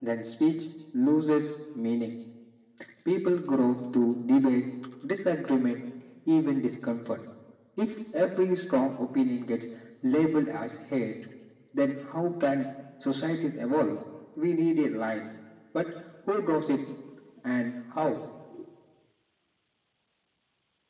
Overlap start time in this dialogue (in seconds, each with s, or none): none